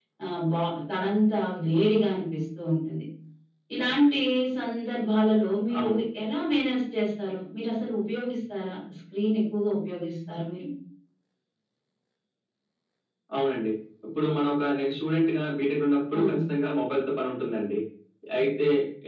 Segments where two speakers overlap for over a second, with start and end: none

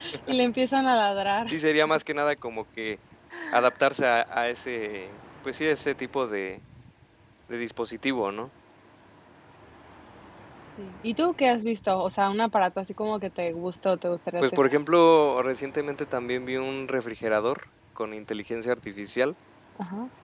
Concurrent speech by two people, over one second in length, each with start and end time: none

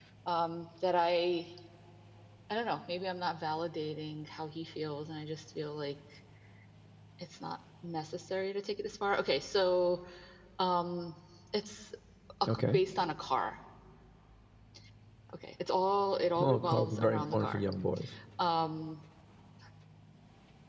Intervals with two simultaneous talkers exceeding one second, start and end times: 16.4-17.6

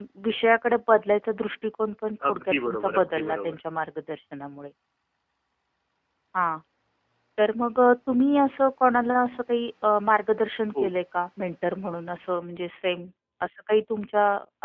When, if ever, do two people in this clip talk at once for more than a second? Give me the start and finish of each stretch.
2.3-3.6

